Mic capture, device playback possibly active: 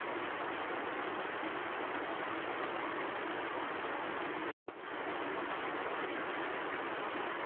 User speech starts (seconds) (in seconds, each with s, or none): none